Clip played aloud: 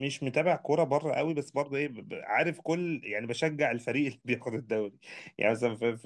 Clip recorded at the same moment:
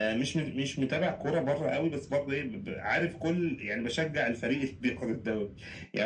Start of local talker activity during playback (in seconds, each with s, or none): none